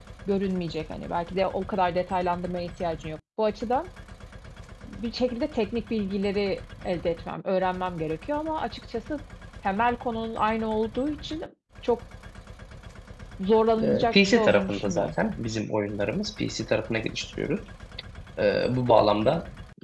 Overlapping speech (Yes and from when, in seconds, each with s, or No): Yes, from 13.8 s